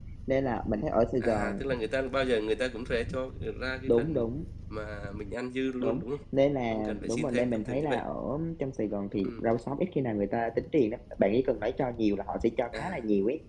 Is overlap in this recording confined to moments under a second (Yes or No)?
No